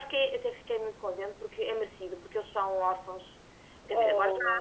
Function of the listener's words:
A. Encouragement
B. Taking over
A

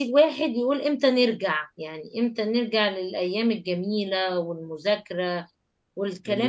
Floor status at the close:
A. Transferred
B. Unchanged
A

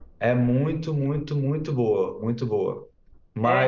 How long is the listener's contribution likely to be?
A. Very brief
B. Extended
A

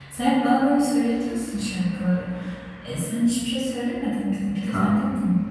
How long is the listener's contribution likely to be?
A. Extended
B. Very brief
A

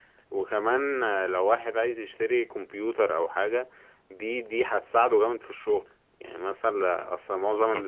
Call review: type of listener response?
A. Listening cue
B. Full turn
A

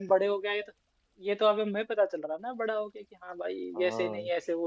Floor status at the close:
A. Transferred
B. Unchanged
A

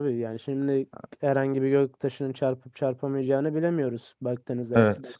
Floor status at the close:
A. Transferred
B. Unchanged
A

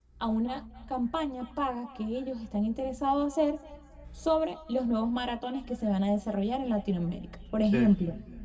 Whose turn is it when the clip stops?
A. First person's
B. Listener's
A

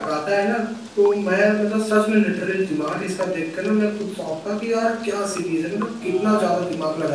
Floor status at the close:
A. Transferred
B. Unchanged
A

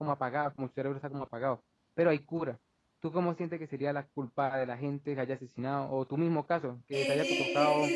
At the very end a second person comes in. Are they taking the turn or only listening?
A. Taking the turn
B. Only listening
A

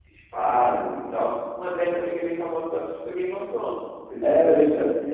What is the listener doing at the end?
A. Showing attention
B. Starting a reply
B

